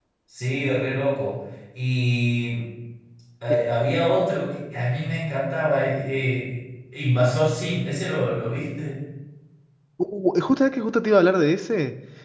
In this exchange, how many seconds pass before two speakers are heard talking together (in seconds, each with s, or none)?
none